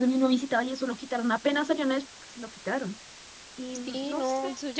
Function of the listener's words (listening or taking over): taking over